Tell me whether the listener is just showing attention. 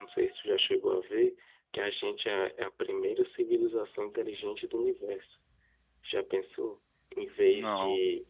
Yes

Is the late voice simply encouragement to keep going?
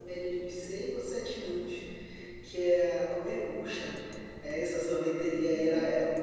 Yes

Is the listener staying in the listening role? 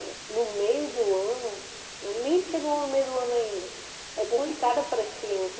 Yes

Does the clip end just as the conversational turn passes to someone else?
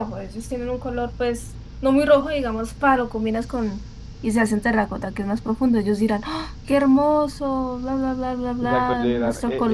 Yes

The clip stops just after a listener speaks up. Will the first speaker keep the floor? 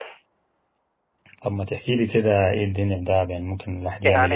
No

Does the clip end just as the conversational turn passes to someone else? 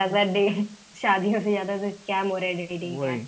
Yes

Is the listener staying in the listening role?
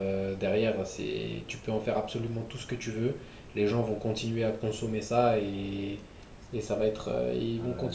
No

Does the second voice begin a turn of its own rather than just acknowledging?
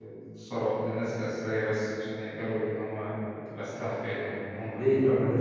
Yes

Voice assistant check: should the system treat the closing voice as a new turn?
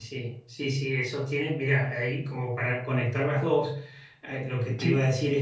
No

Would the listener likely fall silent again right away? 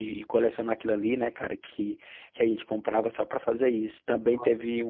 Yes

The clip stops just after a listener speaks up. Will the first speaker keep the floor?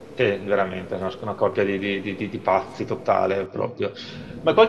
Yes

